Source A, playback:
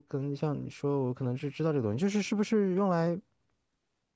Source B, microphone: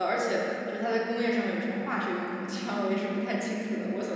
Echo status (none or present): none